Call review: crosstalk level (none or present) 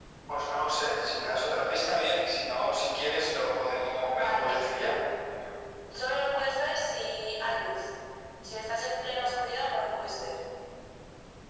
present